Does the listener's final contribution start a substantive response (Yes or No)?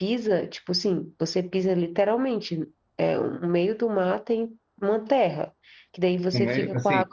Yes